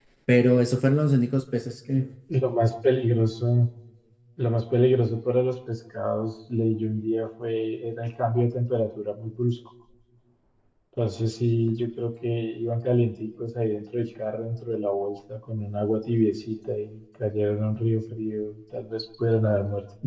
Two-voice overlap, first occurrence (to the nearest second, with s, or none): none